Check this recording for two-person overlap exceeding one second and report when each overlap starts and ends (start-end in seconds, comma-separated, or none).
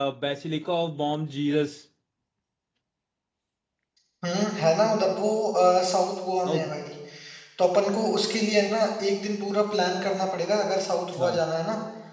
none